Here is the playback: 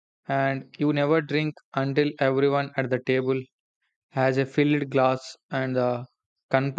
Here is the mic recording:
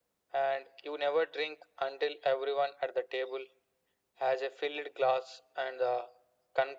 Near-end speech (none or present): none